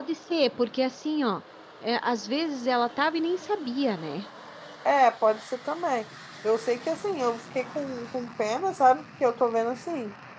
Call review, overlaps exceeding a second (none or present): none